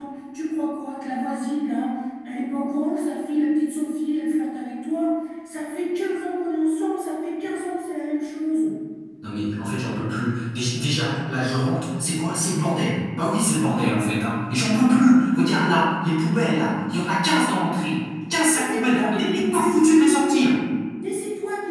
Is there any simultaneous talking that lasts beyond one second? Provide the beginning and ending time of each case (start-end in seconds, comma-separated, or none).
18.5-20.3